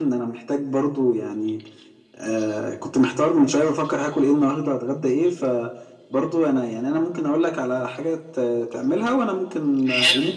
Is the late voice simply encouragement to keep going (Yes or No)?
No